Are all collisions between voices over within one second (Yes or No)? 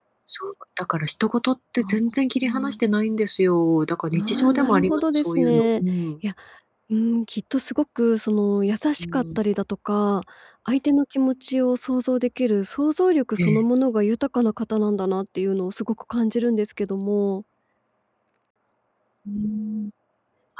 No